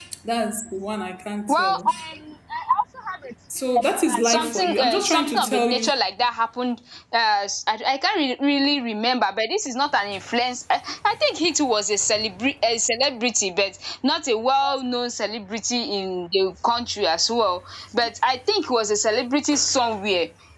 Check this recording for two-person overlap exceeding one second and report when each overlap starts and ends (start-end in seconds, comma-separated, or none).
4.2-5.9